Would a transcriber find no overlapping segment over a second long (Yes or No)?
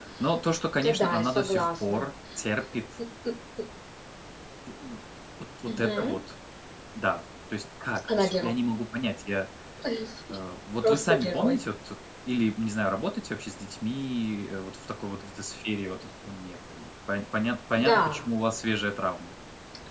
No